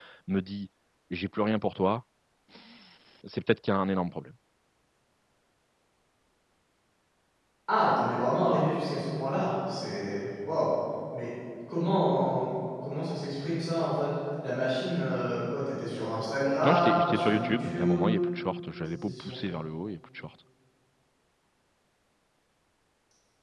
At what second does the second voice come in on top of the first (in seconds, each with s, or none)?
16.7 s